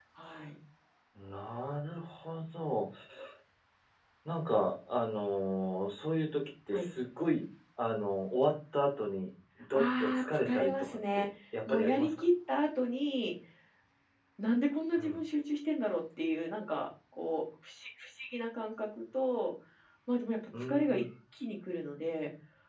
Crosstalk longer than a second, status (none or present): present